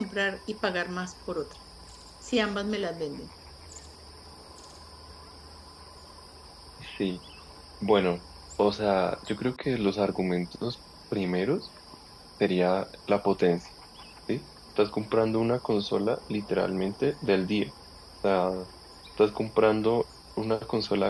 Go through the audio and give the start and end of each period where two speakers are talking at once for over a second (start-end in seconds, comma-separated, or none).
none